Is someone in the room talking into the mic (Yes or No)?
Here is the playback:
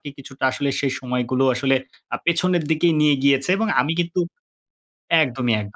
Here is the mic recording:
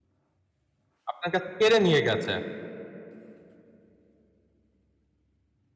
Yes